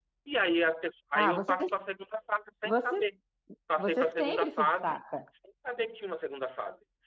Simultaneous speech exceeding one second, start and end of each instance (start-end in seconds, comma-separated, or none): 3.8-5.0